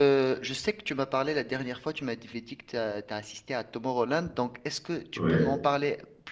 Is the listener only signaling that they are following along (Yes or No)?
Yes